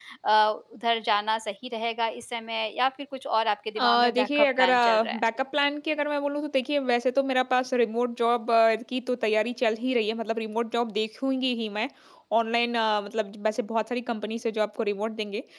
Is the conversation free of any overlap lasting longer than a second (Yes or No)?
No